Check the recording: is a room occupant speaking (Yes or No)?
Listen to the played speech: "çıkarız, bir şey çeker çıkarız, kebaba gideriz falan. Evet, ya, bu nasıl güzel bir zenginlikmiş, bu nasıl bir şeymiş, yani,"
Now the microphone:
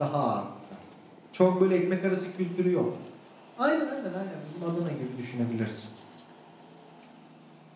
Yes